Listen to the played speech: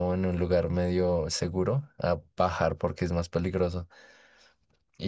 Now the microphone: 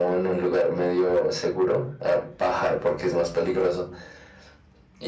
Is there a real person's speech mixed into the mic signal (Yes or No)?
No